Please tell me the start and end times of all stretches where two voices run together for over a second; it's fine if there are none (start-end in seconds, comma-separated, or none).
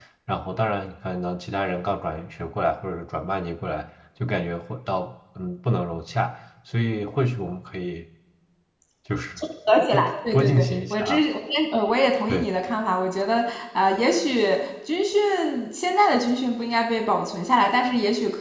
9.9-11.2